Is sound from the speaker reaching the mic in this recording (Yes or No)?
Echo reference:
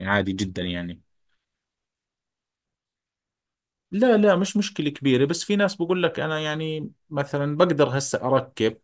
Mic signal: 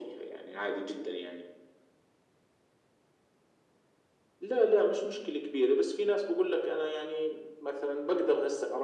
Yes